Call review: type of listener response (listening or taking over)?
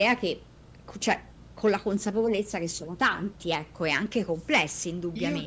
taking over